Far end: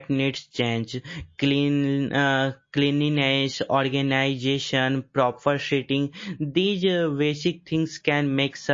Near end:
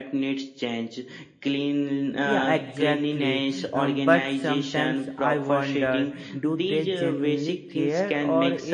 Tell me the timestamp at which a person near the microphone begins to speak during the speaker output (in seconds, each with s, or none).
2.2 s